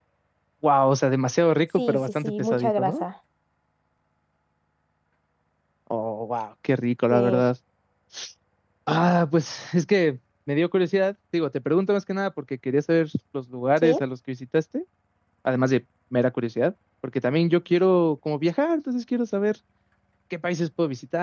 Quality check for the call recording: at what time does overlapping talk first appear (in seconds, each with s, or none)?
1.8 s